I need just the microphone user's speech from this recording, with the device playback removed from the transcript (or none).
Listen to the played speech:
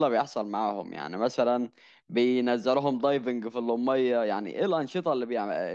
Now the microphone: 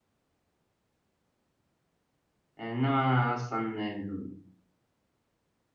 آه، انما انا اصلا آه،